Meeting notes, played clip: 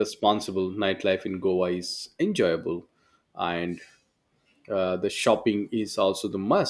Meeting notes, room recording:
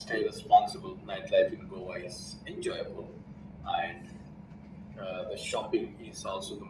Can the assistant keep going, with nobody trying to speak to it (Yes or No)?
Yes